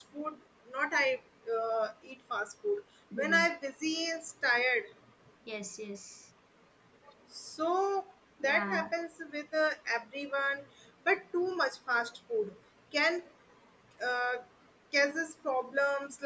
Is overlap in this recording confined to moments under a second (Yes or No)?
Yes